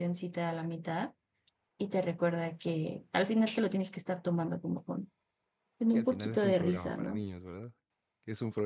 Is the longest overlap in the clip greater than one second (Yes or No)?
Yes